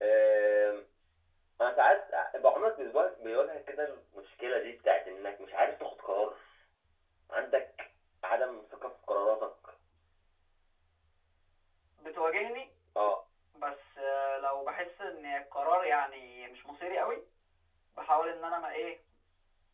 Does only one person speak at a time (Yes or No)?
Yes